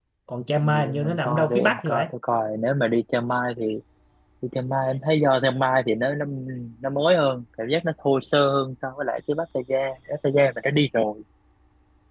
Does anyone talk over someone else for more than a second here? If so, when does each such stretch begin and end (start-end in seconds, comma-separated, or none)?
0.6-2.1